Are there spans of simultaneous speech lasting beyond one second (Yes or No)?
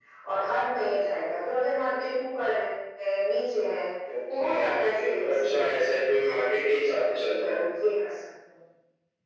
Yes